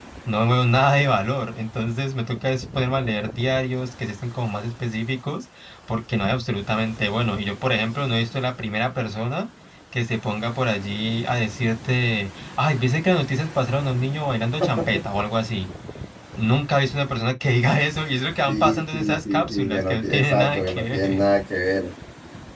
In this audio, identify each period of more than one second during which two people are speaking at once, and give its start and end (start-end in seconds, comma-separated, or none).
18.5-21.2